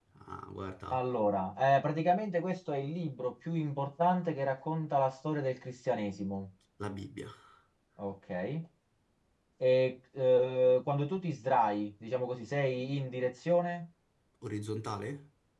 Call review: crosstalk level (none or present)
none